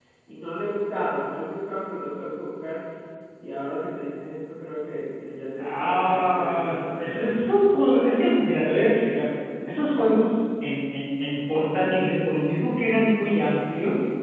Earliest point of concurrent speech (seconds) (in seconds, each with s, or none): 5.6 s